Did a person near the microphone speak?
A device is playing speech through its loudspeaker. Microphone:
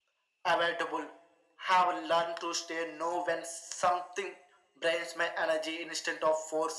No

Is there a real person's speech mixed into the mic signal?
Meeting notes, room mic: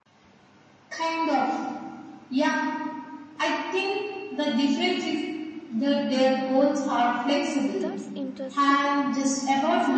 Yes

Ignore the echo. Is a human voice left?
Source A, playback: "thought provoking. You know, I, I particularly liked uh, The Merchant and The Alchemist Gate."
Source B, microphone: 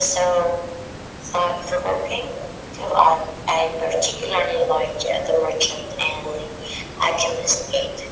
No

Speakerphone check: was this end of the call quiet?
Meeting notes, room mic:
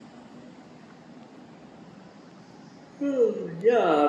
No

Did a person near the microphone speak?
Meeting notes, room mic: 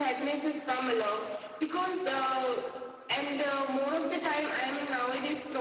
No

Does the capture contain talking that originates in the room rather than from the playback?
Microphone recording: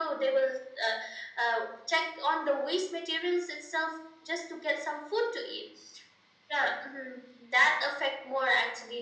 No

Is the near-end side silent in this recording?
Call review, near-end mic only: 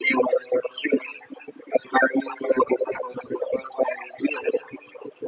Yes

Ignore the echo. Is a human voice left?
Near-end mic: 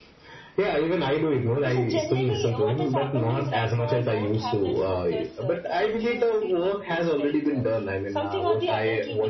Yes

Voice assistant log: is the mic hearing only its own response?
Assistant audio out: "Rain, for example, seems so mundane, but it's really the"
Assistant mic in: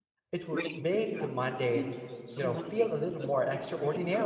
No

